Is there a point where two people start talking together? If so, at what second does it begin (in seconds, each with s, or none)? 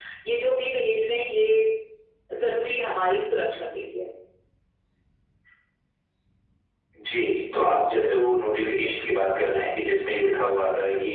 none